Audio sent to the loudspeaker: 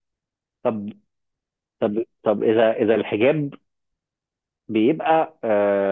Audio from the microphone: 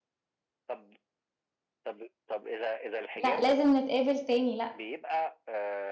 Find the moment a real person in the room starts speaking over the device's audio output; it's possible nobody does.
3.1 s

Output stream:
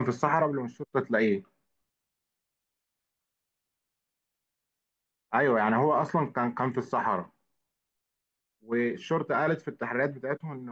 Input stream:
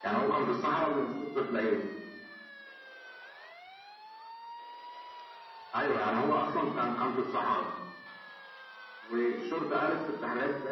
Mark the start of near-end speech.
none

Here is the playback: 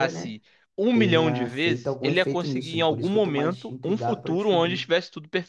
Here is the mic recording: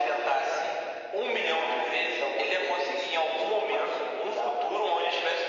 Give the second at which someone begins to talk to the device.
none

